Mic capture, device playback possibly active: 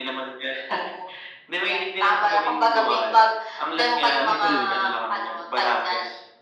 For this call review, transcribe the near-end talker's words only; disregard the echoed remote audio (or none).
Tuloy-tuloy lang.